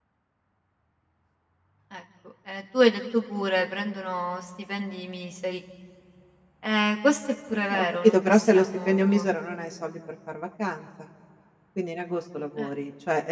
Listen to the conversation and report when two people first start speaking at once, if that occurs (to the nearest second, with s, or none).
8 s